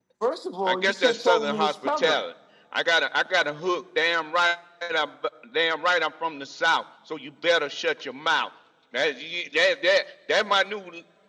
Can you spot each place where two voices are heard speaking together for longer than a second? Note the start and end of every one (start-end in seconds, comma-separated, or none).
0.6-2.2